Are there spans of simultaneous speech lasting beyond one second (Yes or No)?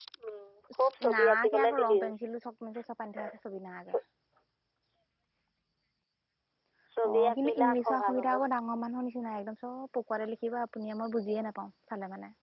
Yes